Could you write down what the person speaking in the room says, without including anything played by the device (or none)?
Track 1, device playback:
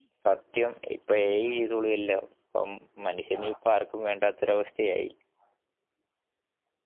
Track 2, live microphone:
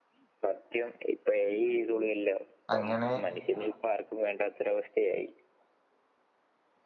അങ്ങനെ